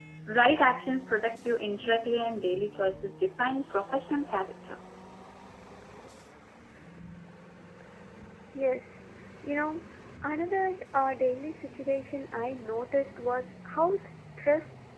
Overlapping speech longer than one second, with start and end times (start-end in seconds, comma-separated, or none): none